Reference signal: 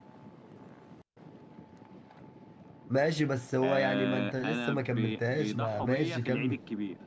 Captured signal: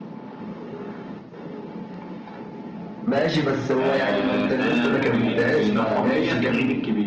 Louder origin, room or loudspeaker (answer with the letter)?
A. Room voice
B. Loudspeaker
B